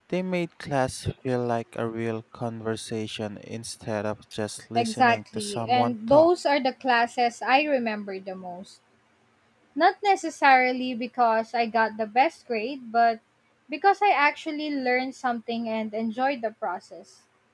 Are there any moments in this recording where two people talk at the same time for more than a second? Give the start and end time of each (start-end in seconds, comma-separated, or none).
4.8-6.3